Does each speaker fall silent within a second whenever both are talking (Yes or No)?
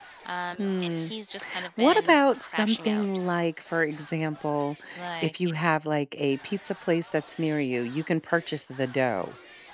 No